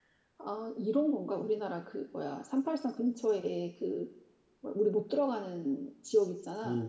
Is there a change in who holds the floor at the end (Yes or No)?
Yes